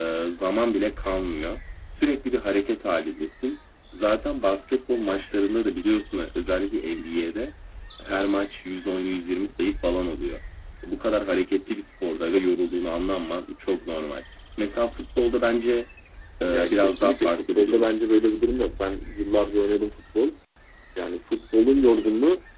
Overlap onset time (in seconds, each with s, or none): 16.5 s